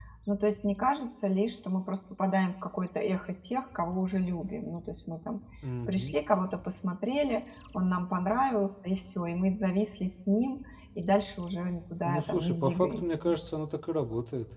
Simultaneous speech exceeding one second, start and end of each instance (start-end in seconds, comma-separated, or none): 12.0-13.3